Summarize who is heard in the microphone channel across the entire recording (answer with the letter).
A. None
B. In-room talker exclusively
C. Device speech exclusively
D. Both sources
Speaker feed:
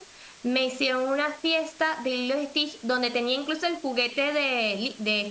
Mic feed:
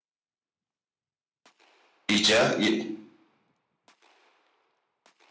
B